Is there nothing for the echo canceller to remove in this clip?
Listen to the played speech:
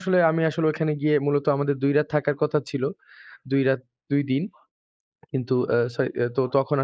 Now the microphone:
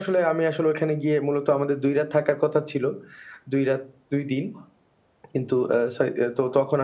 No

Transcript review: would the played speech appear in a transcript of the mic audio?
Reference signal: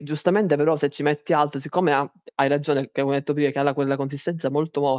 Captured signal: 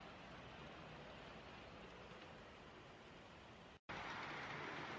No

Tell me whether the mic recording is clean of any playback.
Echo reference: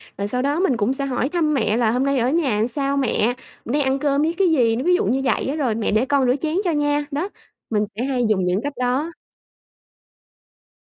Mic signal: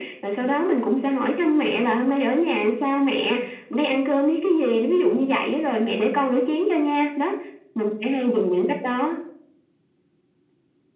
No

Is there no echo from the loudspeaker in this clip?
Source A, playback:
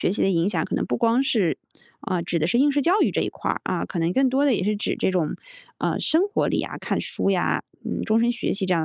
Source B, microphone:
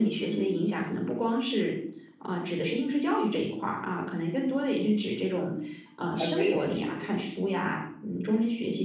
No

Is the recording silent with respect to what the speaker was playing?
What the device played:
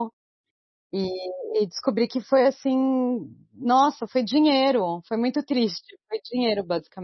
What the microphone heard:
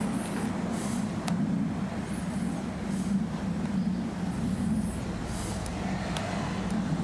Yes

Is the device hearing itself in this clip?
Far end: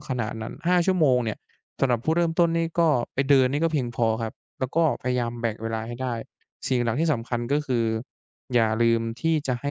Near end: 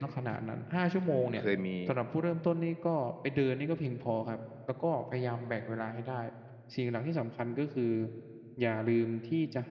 Yes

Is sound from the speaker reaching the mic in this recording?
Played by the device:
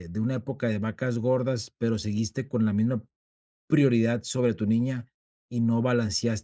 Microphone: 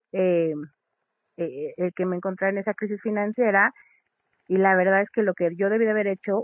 No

